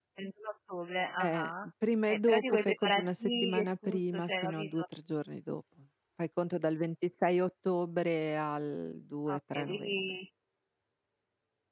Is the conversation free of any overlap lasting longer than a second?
No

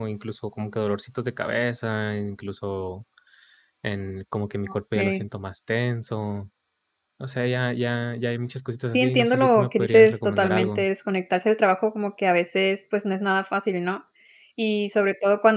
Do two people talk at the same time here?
Yes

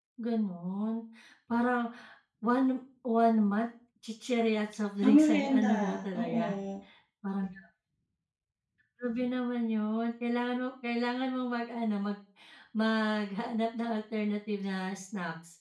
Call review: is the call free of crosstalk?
No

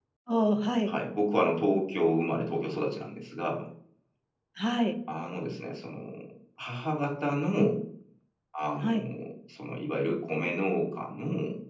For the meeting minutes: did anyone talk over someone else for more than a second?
No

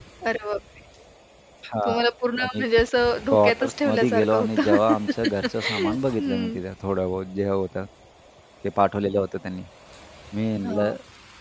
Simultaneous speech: Yes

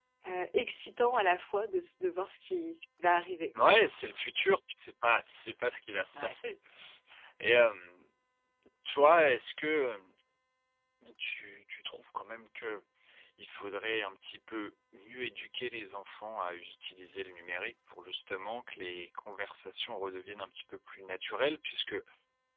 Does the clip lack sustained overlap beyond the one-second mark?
Yes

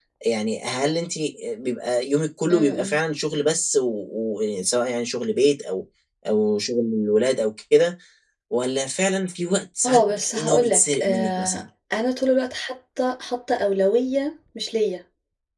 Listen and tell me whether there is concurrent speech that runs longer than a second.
Yes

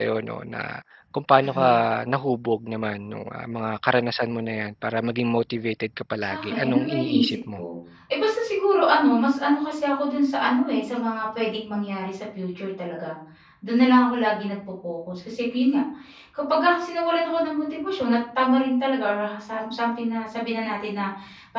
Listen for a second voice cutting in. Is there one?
Yes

